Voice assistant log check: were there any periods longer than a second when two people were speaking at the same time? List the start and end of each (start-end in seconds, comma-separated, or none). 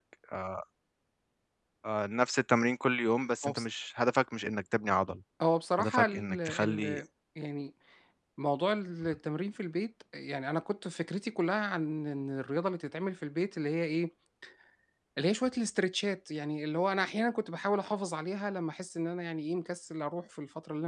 5.8-7.0